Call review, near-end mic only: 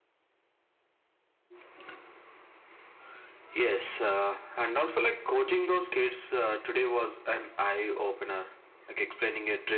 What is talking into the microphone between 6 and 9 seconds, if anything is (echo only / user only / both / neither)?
echo only